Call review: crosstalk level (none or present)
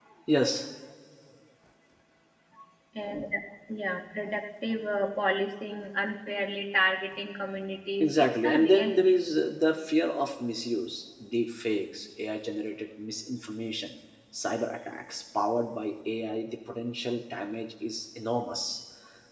present